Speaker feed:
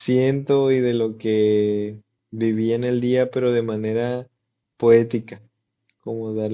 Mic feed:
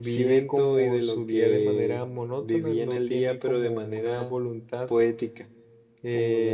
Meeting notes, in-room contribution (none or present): present